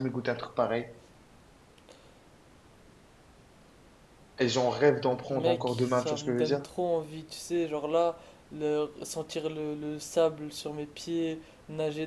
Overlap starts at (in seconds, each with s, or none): 5.3 s